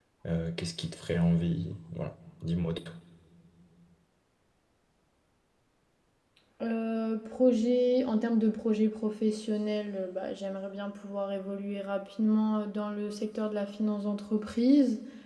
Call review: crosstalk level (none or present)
none